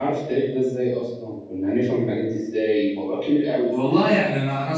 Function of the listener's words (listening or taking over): taking over